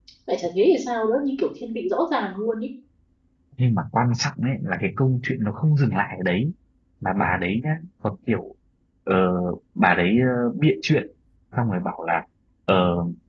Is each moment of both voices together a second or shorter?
Yes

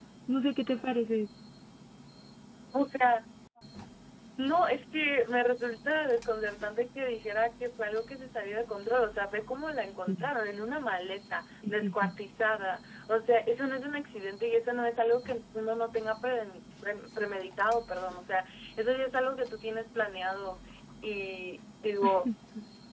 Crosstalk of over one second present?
No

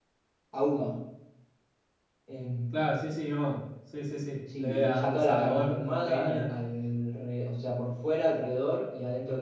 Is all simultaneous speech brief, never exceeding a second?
No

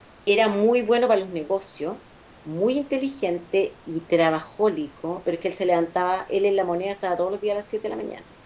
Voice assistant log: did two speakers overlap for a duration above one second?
No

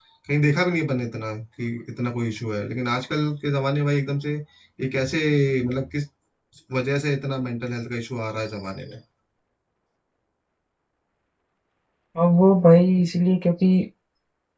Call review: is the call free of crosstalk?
Yes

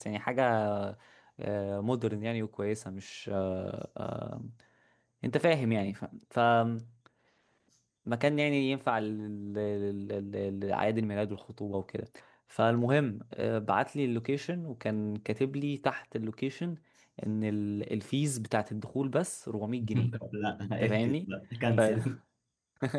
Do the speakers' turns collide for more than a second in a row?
No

